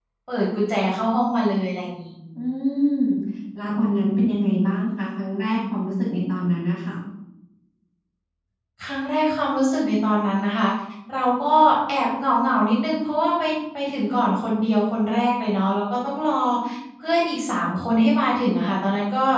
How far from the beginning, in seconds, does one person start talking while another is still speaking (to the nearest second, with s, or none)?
none